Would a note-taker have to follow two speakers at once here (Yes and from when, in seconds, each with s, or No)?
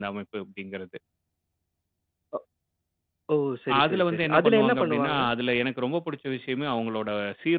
Yes, from 3.8 s